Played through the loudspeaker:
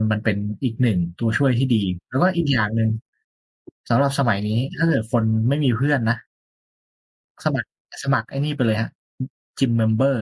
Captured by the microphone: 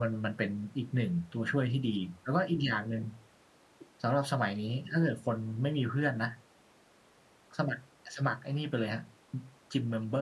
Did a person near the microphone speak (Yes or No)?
No